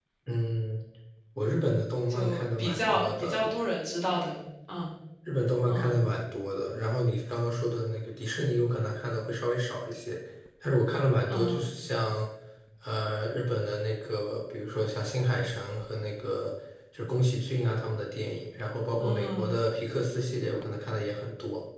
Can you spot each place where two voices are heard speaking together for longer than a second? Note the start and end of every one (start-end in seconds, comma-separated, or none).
2.1-3.4